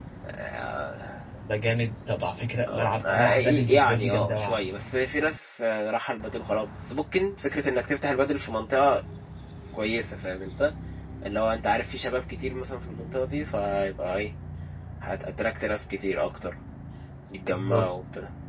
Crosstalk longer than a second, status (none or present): present